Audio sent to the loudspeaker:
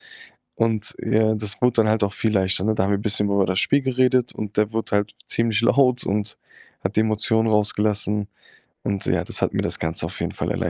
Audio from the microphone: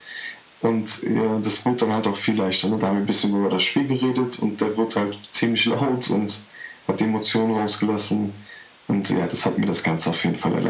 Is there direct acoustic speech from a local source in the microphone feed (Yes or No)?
No